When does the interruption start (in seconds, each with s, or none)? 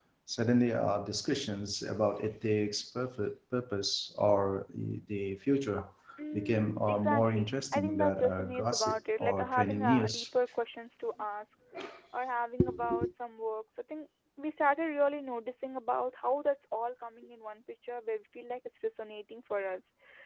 6.3 s